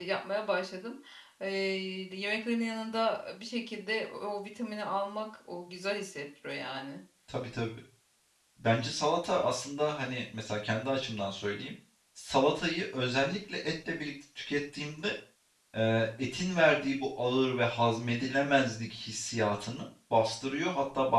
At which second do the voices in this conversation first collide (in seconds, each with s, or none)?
none